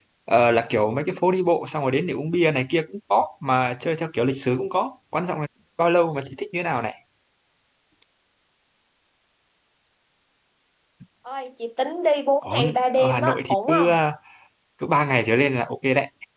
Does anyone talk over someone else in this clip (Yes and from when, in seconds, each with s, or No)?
Yes, from 12.4 s